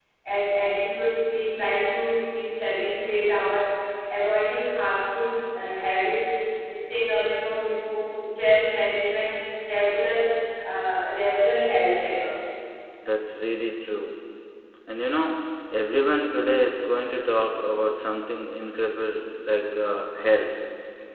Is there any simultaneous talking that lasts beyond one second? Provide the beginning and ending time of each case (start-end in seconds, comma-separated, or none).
none